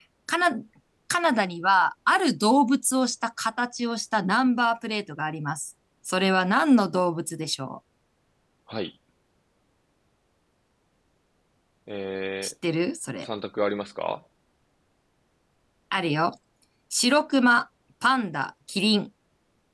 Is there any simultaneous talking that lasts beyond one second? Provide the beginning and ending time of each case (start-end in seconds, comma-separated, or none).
none